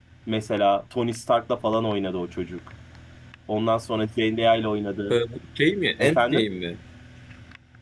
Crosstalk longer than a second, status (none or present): none